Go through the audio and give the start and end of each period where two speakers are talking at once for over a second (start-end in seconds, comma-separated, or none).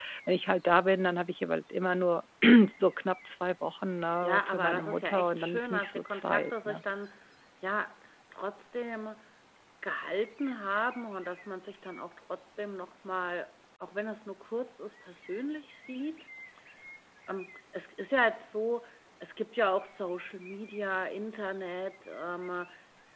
4.2-6.8